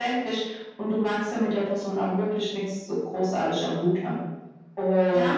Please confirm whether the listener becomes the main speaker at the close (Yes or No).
Yes